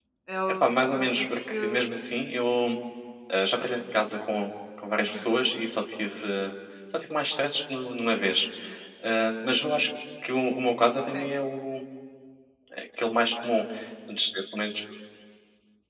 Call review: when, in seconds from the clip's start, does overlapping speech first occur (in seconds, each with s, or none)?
0.6 s